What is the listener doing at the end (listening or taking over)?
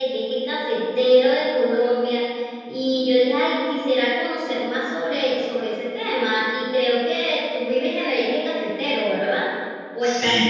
taking over